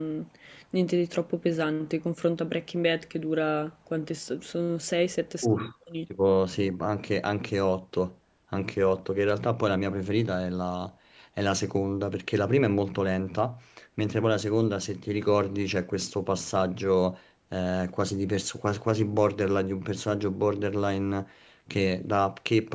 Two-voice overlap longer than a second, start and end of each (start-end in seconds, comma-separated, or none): none